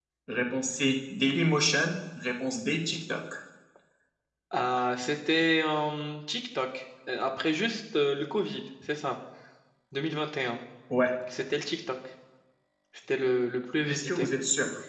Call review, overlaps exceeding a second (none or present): none